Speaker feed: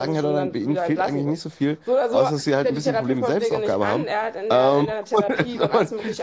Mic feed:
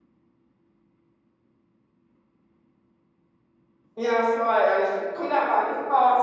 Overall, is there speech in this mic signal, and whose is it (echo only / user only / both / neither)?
user only